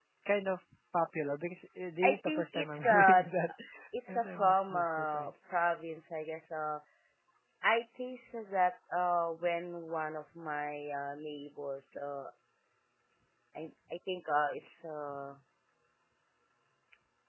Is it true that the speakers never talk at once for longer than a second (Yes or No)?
No